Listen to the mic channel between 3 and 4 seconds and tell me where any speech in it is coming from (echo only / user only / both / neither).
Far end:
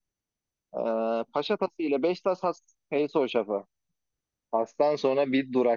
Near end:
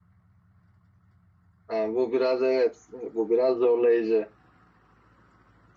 user only